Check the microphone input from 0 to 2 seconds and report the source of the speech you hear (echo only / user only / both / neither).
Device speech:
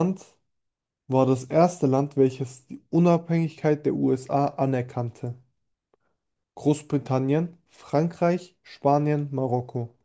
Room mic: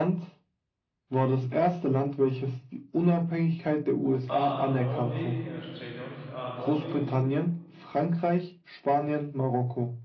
echo only